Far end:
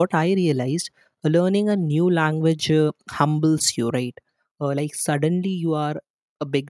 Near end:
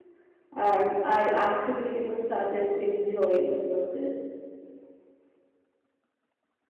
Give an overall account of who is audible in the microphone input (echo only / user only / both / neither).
user only